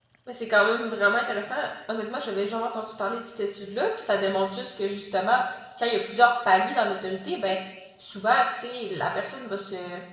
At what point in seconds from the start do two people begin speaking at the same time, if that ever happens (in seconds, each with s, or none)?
none